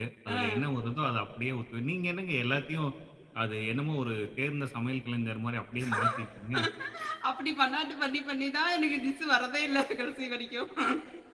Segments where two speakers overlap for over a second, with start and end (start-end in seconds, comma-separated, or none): none